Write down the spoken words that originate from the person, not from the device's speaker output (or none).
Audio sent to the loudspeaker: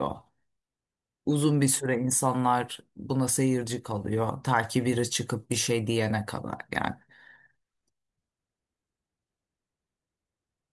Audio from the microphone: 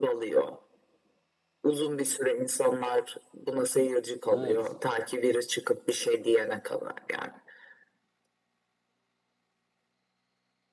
evet.